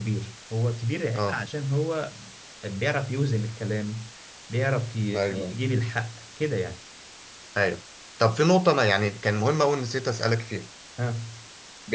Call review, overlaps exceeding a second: none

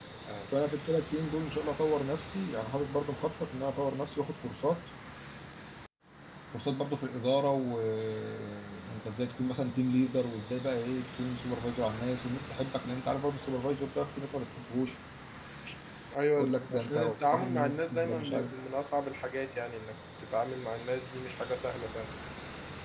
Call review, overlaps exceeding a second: present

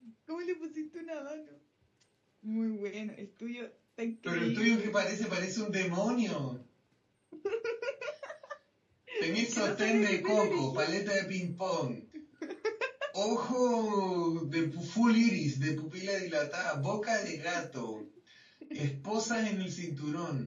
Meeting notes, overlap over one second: present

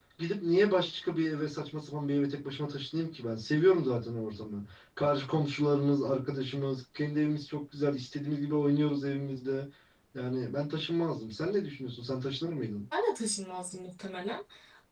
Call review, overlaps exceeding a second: none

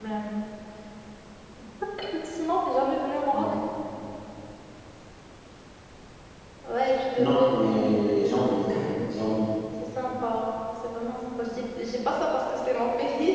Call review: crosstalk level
present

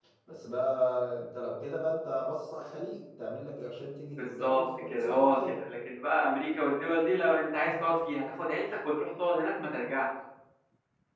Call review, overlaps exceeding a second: present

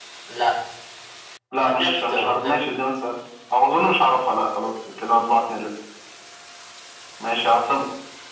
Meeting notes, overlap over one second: present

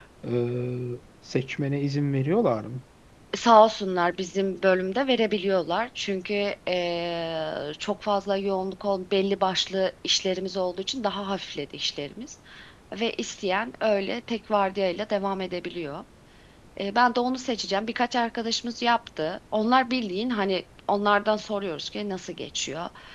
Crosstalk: none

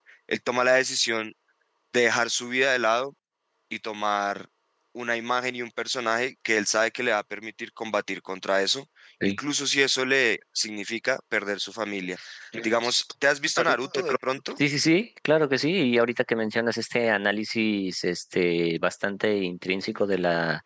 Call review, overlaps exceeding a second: none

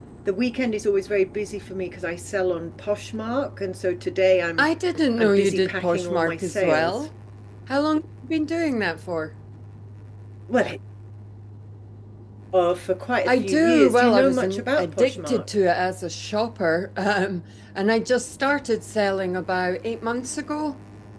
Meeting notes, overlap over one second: present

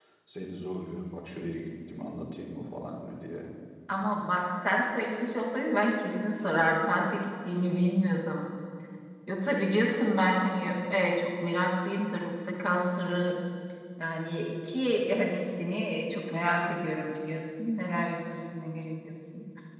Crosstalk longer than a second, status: none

